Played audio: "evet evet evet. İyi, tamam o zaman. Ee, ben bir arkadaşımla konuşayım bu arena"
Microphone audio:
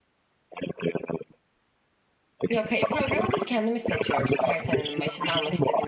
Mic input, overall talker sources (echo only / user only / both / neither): both